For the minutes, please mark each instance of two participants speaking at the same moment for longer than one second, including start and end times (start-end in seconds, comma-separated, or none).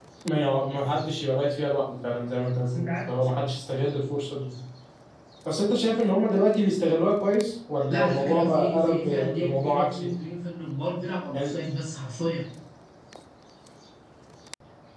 7.9-10.1